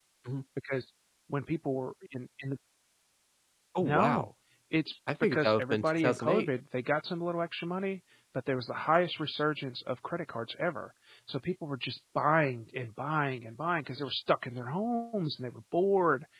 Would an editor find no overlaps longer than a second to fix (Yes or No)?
No